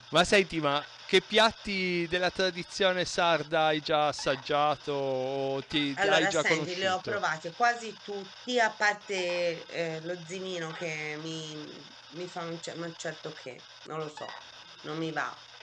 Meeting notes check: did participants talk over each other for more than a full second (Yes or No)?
Yes